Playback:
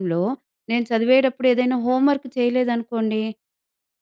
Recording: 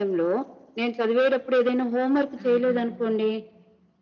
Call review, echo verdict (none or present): present